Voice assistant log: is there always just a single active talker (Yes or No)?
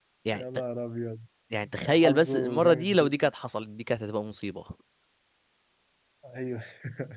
No